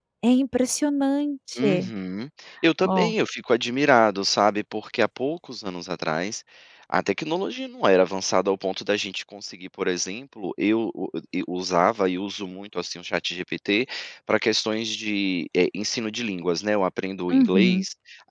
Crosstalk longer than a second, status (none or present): none